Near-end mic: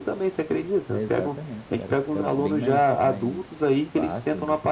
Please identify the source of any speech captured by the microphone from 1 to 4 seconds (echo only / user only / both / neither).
both